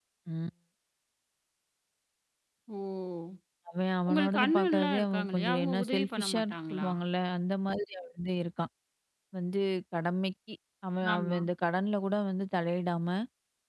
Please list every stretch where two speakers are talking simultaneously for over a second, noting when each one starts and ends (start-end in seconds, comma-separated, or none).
4.1-6.9